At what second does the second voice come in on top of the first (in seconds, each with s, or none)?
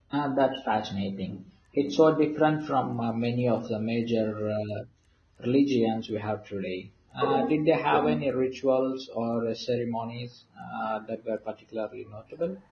none